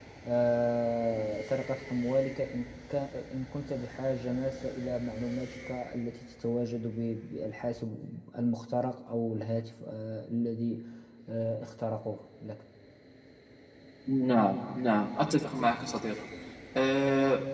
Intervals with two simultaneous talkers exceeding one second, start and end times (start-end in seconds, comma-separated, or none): none